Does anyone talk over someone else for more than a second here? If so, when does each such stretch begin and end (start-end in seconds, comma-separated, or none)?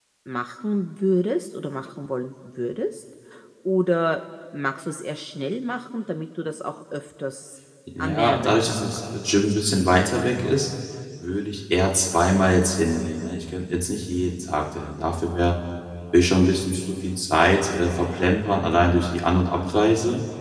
8.0-9.5